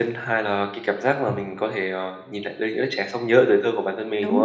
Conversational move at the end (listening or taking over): taking over